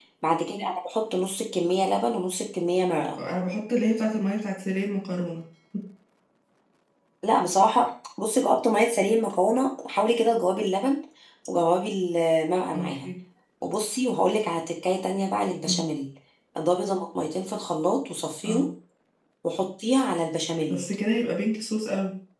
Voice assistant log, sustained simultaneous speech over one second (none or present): none